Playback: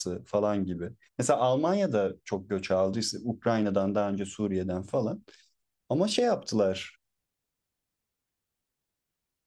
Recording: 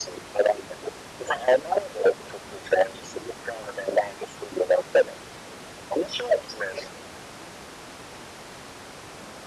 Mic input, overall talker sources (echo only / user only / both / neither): echo only